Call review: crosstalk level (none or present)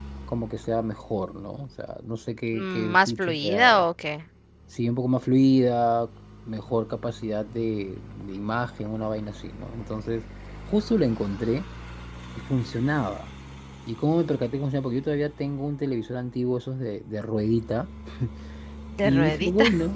present